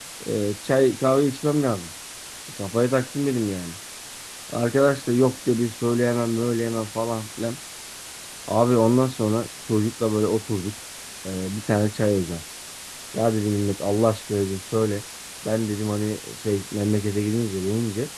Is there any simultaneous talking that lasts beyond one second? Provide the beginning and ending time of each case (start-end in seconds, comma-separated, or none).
none